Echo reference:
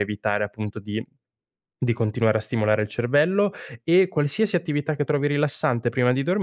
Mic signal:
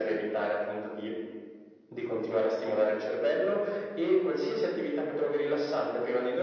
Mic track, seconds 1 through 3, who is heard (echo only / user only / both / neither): echo only